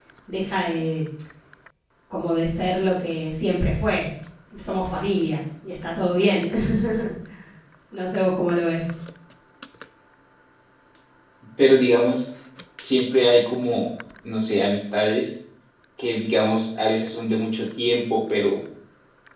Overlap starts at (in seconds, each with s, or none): none